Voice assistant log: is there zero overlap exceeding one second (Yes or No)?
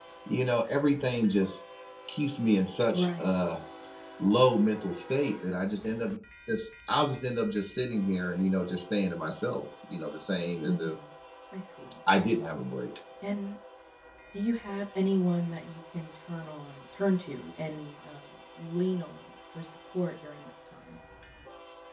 Yes